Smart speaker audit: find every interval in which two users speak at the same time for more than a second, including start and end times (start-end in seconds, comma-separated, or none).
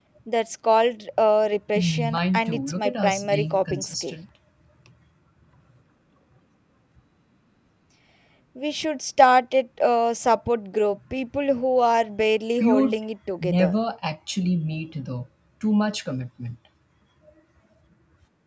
1.8-4.2